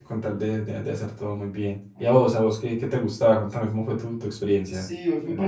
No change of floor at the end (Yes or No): No